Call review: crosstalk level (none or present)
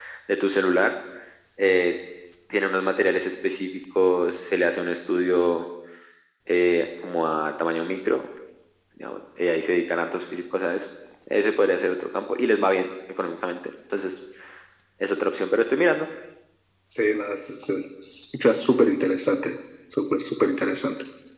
none